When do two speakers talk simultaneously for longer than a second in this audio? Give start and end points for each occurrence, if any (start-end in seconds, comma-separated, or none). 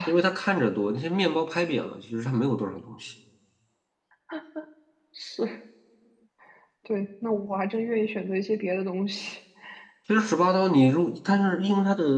none